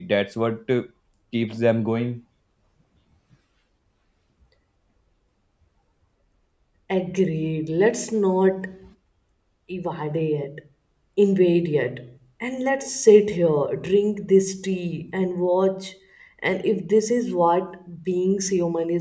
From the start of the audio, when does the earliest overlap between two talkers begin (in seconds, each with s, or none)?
none